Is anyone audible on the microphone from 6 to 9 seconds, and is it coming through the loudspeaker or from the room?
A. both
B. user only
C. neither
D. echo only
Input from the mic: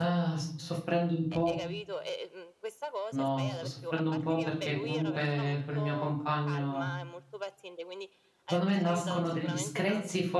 A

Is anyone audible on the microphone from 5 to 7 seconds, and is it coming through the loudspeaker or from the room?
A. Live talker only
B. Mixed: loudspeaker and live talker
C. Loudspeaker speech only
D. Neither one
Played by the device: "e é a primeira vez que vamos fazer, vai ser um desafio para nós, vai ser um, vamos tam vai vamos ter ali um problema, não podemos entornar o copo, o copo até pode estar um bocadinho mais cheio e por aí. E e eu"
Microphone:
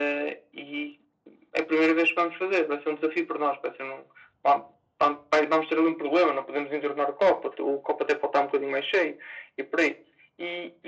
C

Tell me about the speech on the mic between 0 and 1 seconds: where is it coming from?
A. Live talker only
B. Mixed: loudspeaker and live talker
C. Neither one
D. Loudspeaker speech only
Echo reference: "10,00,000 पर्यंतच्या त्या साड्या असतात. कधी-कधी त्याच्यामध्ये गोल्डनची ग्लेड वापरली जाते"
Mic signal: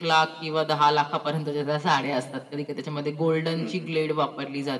D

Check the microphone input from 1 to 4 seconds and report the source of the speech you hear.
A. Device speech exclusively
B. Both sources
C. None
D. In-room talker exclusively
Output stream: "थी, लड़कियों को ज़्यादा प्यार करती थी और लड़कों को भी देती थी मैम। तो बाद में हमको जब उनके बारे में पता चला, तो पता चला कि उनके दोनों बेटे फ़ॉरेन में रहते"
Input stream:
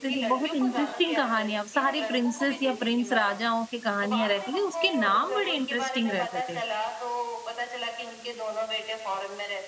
B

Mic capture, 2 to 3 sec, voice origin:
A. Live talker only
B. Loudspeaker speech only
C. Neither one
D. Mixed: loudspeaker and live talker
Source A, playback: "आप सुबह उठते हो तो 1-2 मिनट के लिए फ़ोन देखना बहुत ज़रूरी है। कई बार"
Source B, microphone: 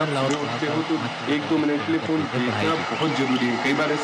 D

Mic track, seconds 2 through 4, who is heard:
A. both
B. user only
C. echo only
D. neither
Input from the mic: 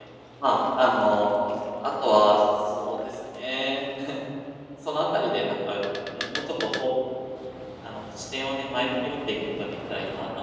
B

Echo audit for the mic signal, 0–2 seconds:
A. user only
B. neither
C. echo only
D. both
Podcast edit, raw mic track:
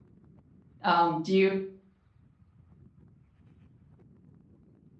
A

